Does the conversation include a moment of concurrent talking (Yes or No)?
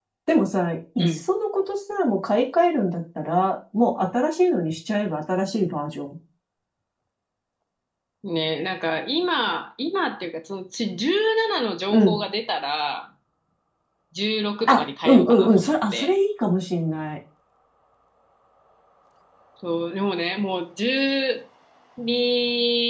Yes